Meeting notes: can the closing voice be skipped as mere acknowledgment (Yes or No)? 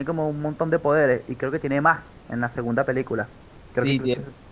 No